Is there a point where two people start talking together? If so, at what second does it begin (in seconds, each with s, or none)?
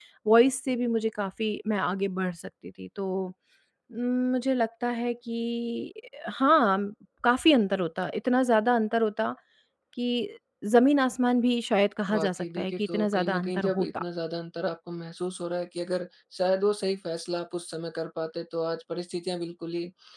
12.1 s